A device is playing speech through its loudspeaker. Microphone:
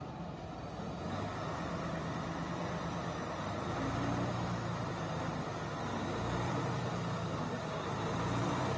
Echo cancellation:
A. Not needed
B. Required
A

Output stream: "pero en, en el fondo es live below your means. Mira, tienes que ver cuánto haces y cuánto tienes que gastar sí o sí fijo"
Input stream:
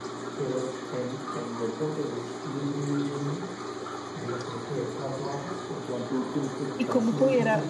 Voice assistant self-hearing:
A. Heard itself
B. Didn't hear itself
A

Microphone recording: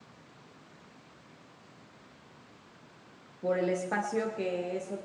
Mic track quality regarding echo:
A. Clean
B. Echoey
A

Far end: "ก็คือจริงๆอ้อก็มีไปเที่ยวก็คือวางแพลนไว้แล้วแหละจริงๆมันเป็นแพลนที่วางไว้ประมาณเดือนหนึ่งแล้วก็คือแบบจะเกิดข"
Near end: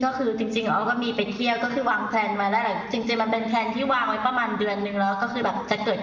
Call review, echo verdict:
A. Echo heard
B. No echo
A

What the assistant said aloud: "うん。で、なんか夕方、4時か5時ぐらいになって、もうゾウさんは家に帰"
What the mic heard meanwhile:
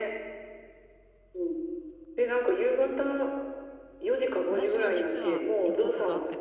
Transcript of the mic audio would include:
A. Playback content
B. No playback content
A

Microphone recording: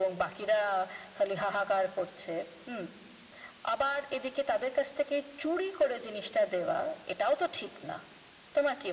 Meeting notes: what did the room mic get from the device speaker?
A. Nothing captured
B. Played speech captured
B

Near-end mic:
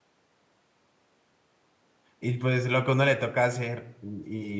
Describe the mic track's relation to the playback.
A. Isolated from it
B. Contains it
A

